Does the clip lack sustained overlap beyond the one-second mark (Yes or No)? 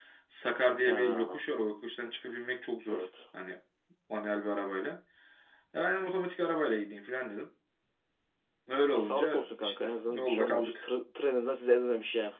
No